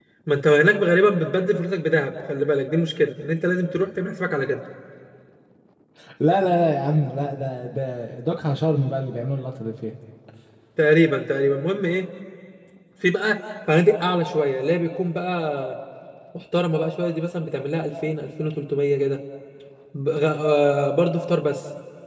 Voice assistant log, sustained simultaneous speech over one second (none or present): none